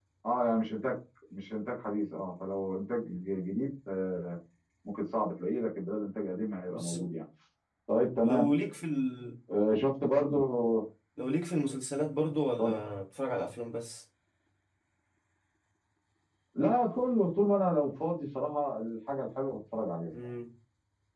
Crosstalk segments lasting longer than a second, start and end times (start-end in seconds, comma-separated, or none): none